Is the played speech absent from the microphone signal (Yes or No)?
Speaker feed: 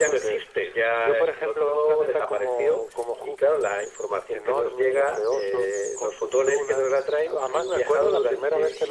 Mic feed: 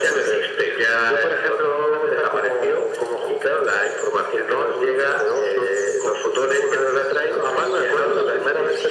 No